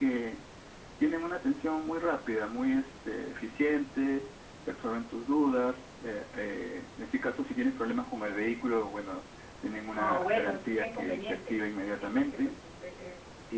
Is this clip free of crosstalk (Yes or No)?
No